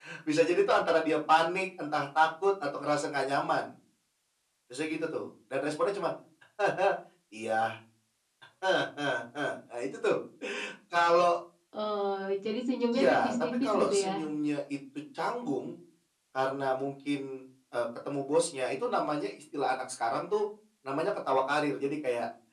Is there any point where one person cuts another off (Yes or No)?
Yes